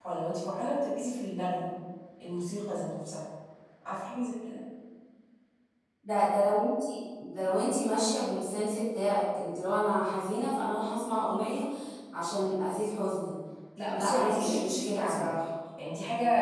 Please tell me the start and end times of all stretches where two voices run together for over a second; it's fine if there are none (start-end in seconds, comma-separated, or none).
13.8-15.2